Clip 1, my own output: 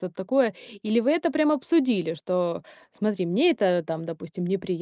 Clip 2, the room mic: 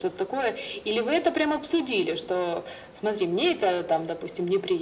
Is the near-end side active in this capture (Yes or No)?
No